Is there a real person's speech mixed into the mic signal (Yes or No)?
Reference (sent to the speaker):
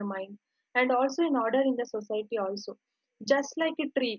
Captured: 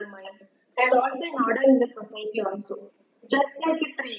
No